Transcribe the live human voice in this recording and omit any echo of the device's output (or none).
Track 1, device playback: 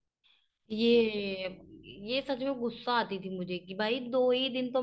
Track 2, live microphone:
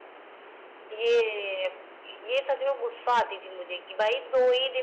none